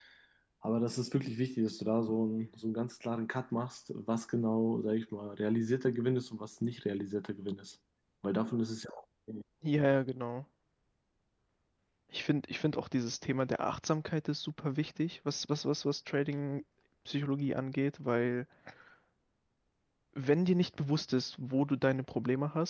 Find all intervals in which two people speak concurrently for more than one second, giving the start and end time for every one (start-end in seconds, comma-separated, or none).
none